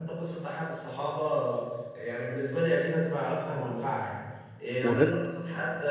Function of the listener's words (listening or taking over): listening